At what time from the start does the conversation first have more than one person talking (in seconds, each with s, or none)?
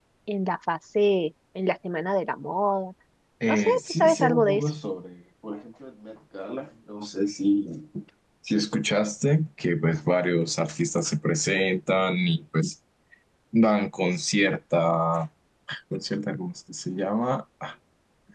3.5 s